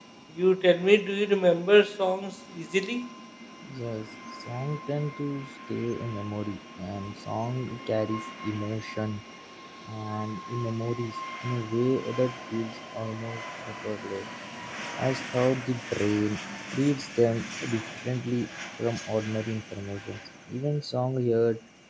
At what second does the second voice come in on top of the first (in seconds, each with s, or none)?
none